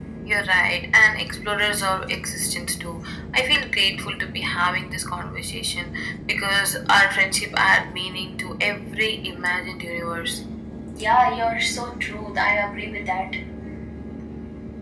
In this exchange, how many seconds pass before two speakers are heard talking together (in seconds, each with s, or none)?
none